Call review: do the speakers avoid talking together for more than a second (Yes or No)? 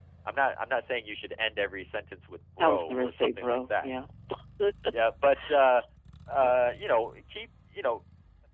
No